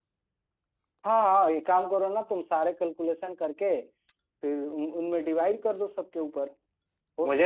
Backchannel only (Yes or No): No